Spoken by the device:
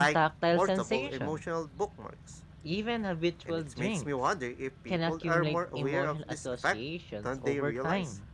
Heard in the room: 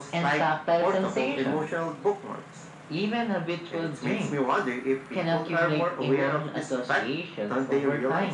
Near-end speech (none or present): none